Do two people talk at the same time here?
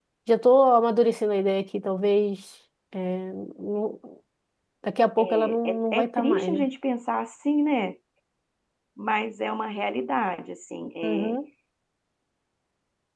Yes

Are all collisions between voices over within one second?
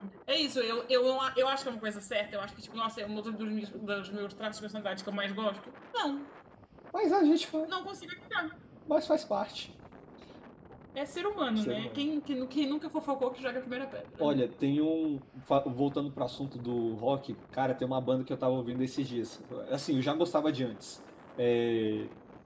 Yes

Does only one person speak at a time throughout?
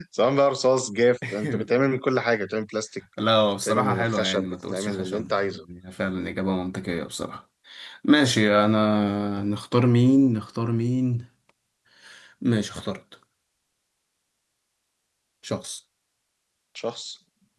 No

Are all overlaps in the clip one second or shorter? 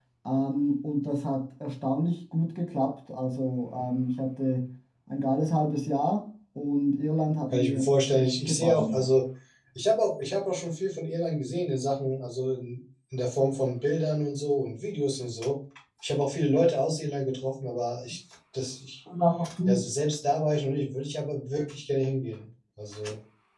No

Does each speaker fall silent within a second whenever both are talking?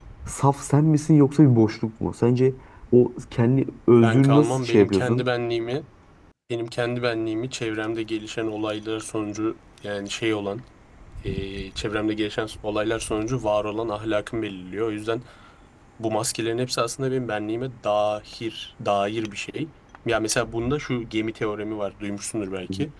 No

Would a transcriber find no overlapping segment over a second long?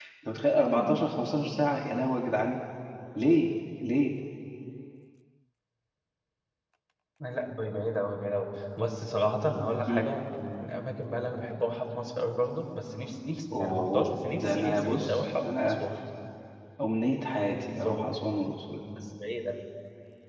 No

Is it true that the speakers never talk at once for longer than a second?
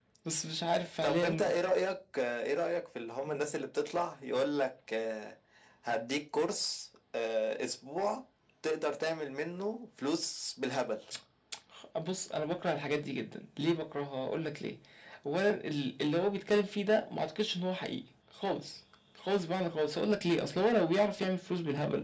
Yes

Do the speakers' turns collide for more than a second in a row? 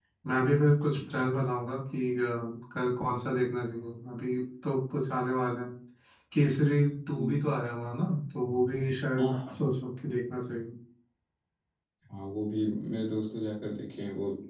No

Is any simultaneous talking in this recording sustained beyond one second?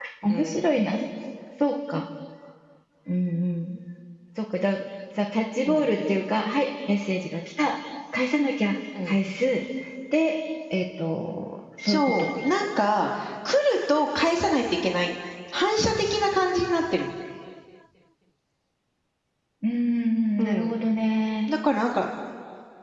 No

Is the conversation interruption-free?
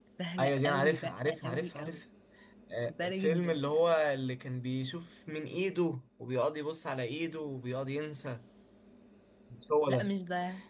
No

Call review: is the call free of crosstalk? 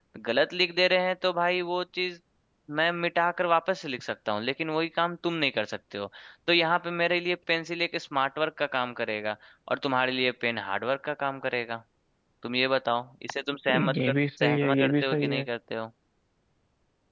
No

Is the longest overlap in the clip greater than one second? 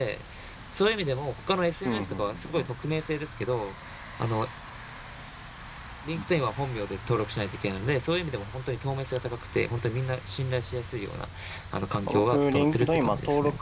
Yes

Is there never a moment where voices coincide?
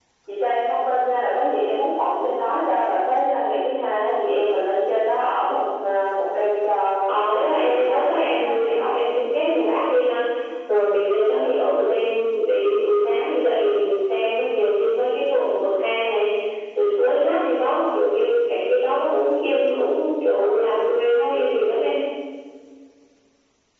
No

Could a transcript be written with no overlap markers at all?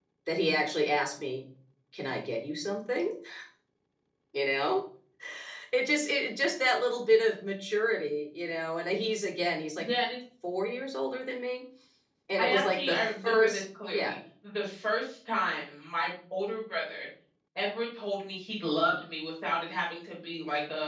No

